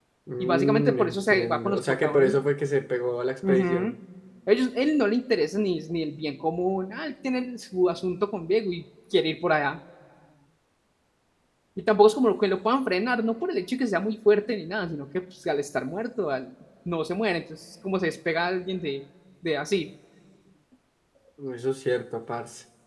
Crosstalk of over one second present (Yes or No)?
Yes